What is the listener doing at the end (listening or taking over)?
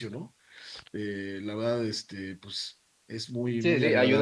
taking over